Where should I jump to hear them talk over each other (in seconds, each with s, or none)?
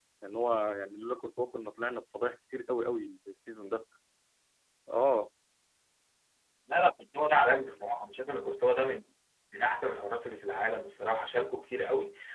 none